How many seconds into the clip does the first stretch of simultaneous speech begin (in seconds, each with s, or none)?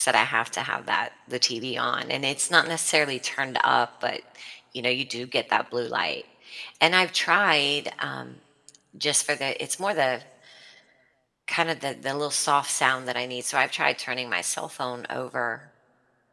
none